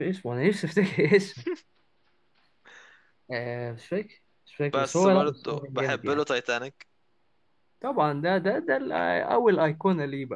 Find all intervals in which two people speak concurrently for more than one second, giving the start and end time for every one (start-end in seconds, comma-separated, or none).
4.8-6.2